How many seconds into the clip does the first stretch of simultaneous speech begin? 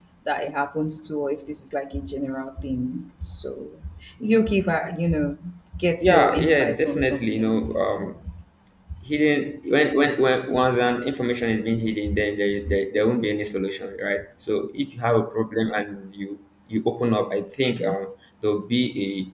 6.0 s

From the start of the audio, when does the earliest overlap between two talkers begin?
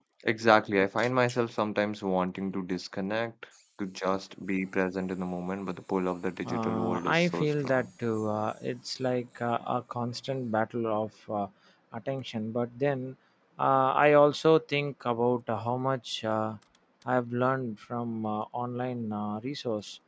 6.4 s

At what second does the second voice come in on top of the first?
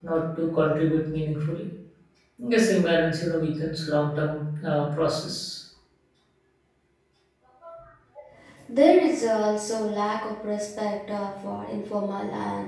none

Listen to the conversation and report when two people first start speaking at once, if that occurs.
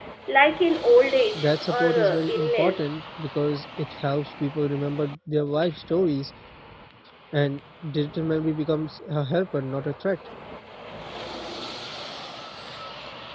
1.3 s

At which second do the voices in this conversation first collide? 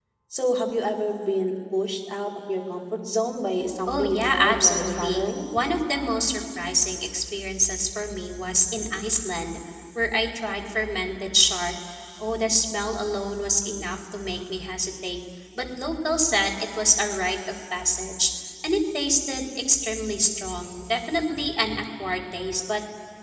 3.9 s

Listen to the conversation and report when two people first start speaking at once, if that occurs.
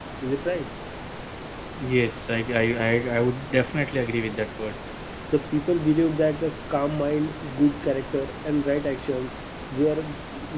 none

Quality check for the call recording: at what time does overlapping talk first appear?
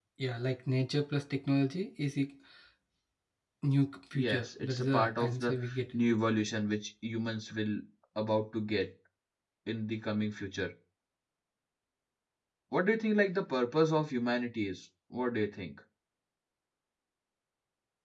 4.1 s

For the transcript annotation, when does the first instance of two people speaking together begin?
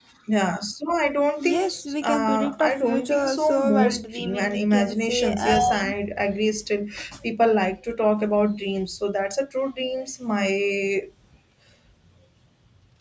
1.4 s

